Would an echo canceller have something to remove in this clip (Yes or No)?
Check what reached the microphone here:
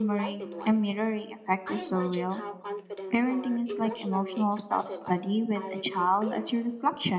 Yes